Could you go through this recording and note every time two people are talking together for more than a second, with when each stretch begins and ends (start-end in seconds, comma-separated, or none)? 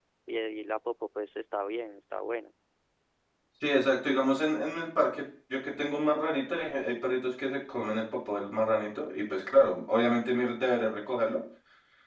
none